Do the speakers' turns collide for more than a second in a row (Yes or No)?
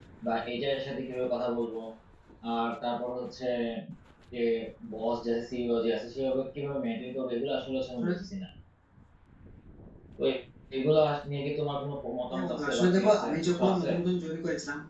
Yes